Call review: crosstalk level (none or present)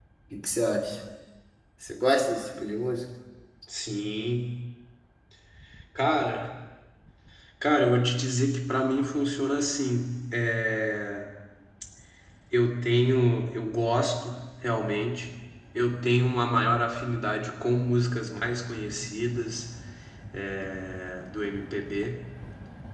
none